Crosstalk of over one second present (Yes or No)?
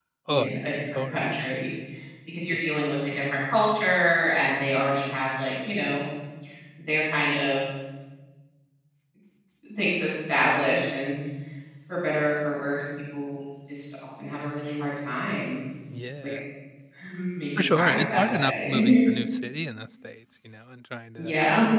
Yes